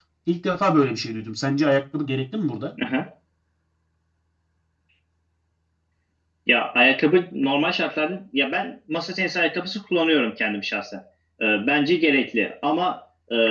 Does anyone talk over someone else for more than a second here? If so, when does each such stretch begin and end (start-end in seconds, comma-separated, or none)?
none